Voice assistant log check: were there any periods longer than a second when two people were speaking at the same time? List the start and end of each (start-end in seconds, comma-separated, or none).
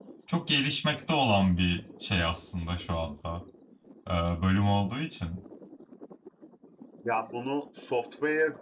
none